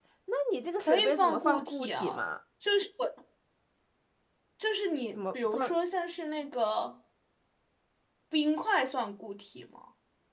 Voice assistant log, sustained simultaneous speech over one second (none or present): present